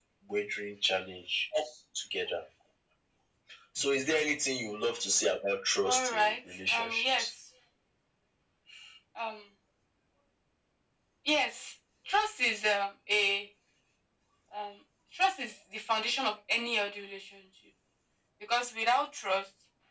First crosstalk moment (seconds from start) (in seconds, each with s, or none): 5.8 s